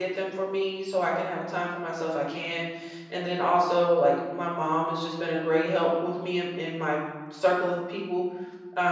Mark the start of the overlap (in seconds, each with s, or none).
none